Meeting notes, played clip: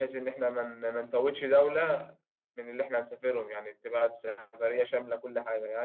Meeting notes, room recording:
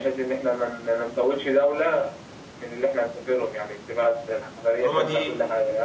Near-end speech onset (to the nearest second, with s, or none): 5 s